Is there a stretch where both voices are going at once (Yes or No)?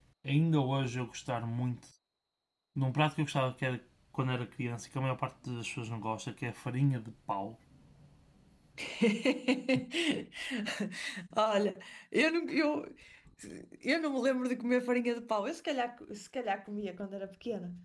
No